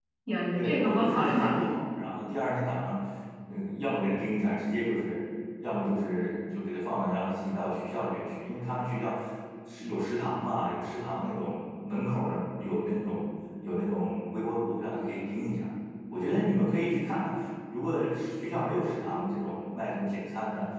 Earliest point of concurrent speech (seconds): 0.5 s

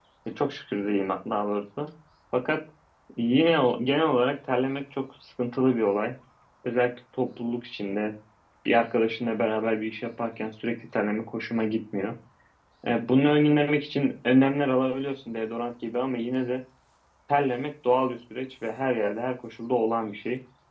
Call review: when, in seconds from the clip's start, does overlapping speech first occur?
none

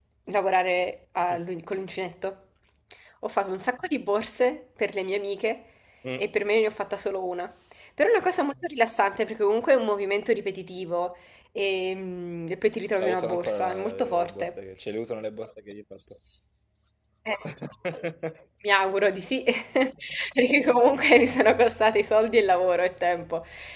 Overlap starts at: 13.0 s

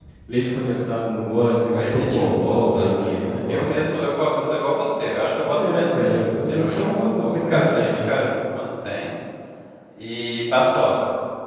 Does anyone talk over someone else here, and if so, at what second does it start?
1.7 s

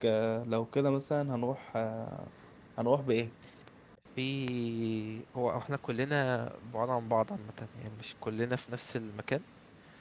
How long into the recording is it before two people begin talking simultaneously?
none

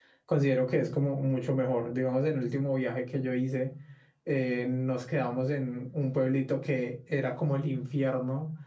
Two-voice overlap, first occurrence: none

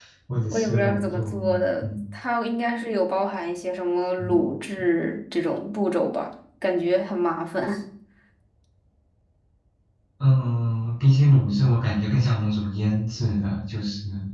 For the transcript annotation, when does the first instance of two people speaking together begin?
0.5 s

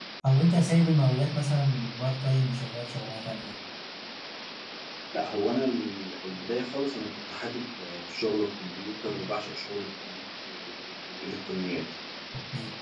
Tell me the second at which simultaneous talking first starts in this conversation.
none

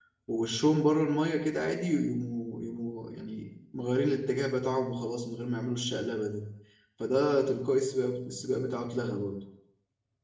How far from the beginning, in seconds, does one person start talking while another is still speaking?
none

